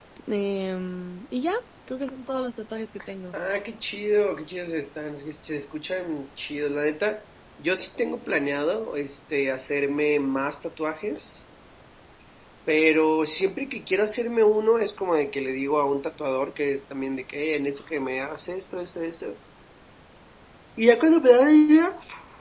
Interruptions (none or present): none